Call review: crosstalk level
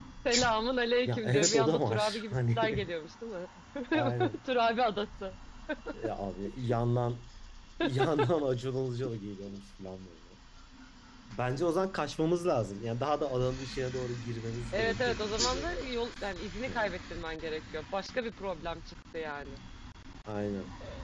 present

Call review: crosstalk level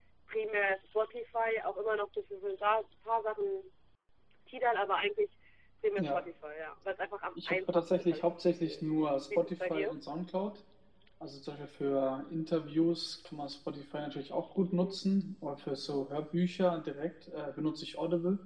present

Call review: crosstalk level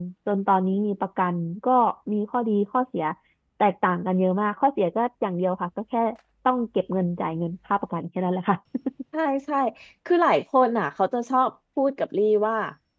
none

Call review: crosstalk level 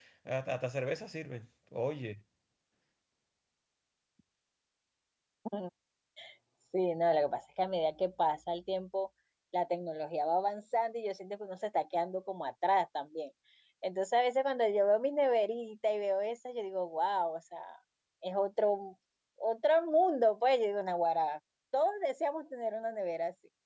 none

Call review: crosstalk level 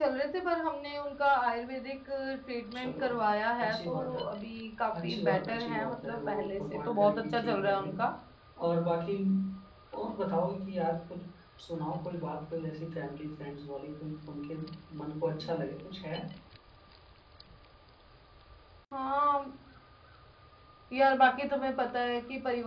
present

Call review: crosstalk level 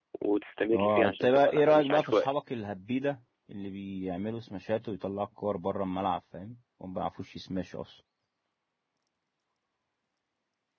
present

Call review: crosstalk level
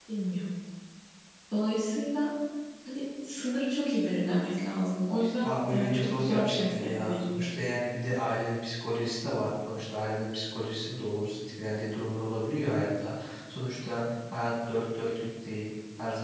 present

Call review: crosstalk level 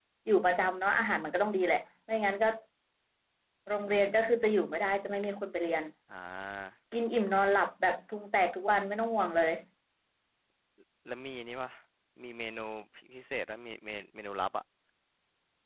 none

